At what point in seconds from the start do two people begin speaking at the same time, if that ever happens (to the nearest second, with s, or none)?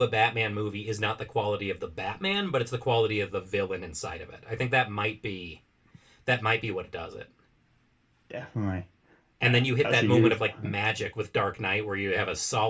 9 s